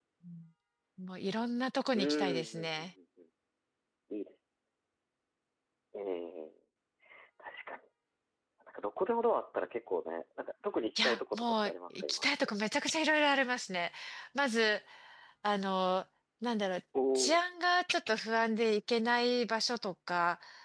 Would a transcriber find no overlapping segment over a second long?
No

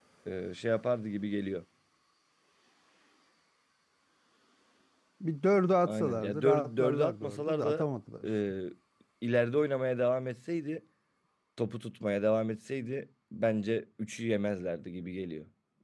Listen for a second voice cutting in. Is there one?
Yes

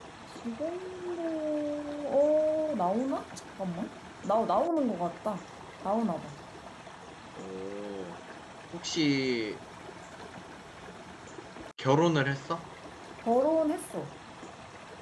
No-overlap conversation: Yes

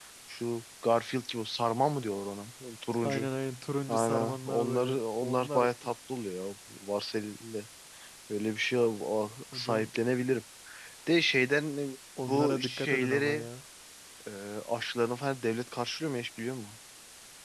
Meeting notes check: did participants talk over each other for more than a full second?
Yes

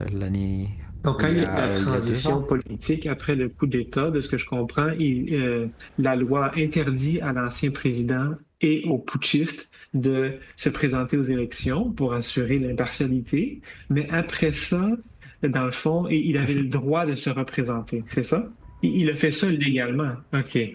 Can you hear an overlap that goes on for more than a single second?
Yes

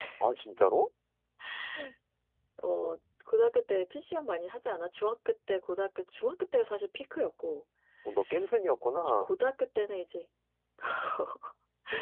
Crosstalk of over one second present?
No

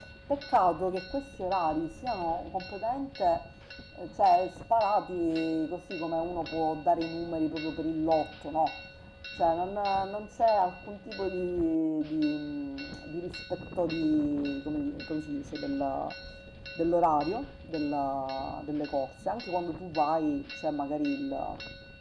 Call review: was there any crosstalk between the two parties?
No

